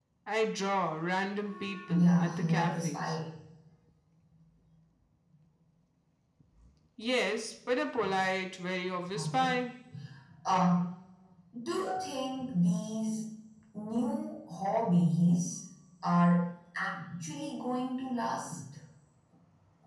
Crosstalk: present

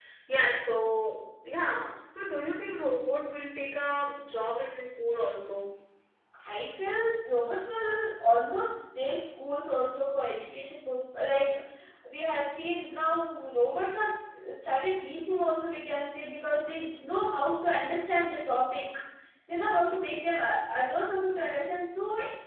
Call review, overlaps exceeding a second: none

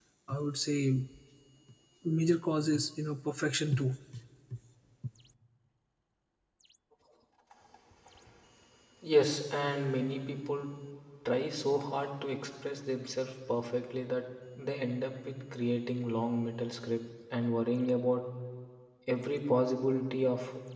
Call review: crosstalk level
none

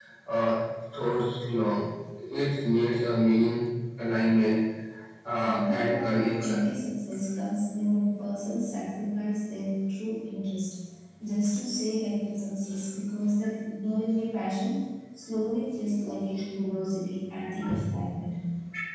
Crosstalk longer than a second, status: present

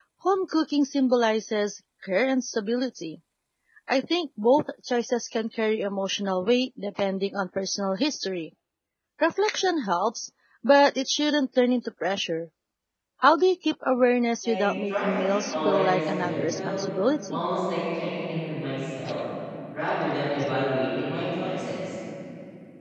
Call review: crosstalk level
present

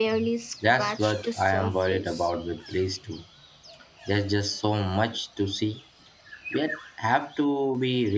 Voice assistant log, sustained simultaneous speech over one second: present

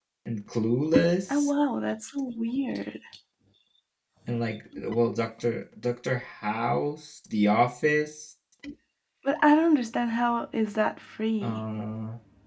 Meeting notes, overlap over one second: none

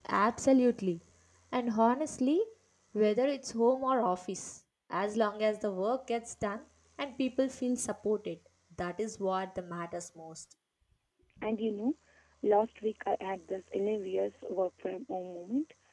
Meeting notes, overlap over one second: none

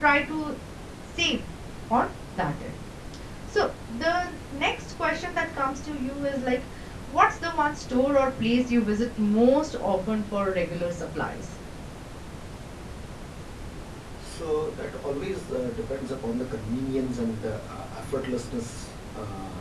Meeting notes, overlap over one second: none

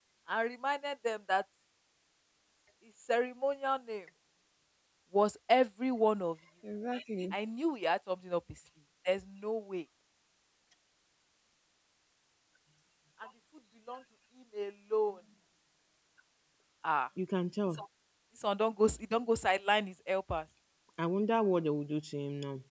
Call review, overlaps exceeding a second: none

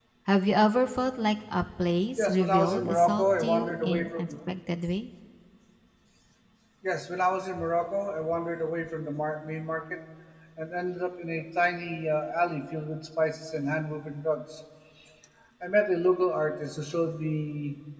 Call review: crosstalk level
present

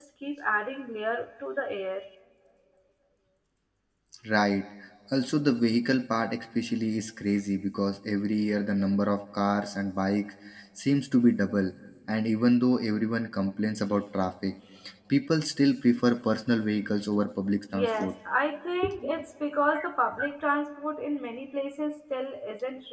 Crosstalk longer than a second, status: none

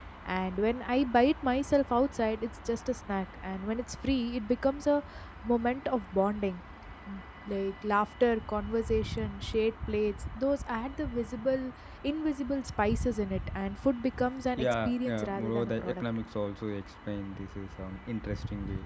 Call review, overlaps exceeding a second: present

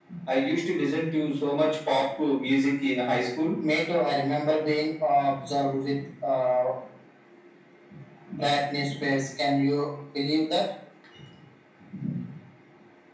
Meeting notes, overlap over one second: none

